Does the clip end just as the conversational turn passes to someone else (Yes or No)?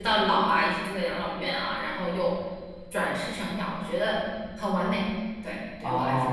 Yes